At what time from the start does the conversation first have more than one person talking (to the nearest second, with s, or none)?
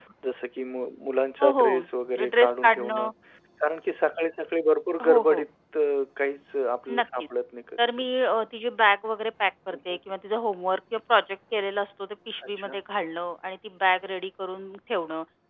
1 s